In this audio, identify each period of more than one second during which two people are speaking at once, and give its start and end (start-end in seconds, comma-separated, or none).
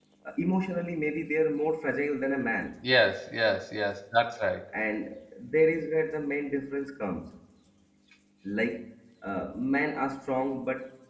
none